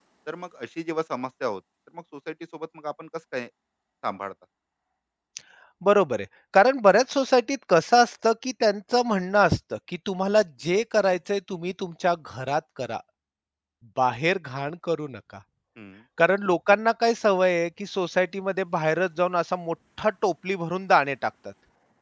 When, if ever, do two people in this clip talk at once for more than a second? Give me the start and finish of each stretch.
none

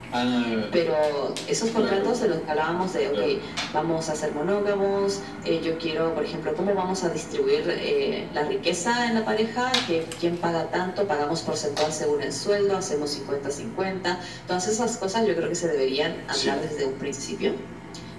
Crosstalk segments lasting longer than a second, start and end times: none

